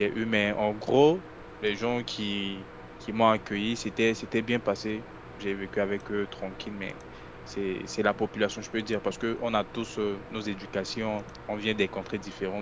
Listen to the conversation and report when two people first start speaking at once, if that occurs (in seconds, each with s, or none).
none